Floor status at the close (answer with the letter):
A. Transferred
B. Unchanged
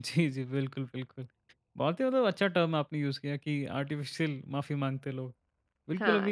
B